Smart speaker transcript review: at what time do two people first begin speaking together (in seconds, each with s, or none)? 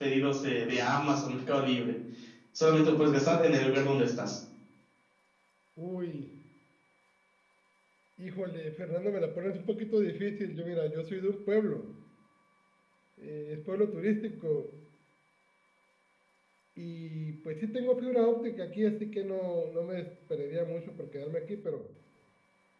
none